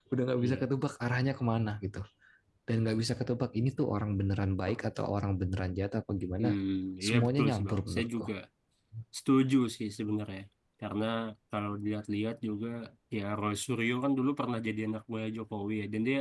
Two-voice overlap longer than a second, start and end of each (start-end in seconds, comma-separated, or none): 7.0-8.2